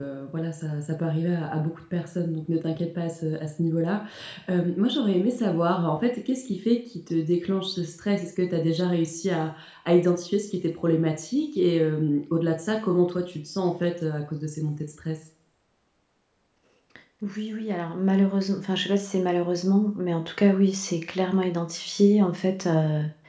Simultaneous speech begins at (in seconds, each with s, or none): none